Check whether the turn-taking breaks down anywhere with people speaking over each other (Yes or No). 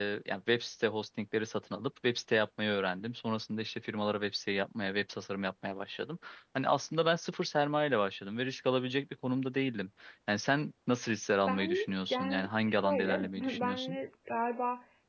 Yes